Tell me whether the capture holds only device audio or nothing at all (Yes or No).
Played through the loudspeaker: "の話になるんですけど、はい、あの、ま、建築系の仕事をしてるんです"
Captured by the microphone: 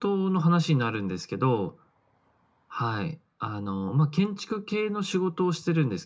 Yes